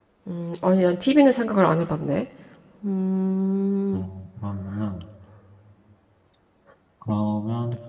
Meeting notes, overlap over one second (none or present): none